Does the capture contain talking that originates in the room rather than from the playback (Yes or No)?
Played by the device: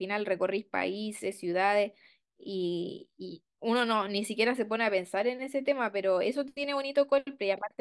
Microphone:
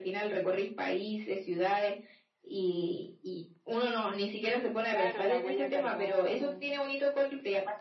Yes